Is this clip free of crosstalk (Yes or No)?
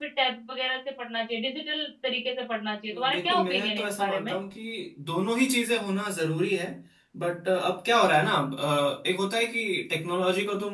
No